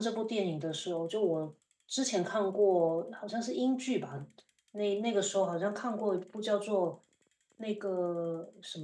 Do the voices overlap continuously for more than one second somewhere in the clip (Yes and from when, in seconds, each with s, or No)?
No